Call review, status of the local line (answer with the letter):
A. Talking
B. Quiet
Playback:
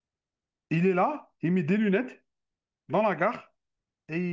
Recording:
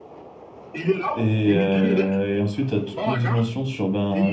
A